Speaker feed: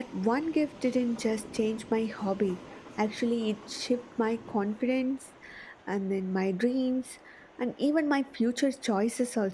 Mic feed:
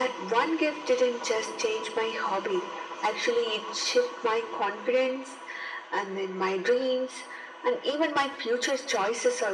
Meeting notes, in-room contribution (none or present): none